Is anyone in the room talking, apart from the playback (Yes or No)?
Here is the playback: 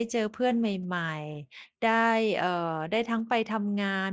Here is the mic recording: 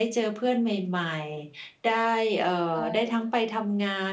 Yes